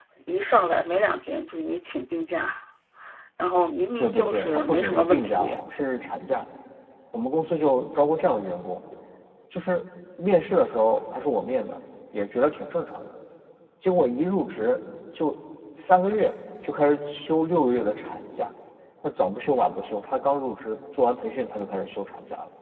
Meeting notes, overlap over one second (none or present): present